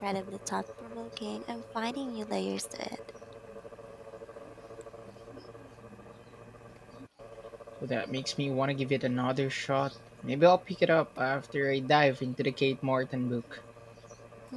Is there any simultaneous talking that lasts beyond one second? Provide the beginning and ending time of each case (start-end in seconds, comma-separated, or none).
none